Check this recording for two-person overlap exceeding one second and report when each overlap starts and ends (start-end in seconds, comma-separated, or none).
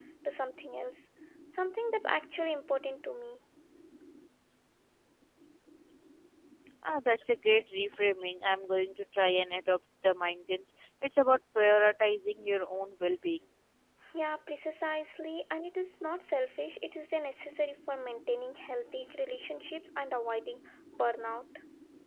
none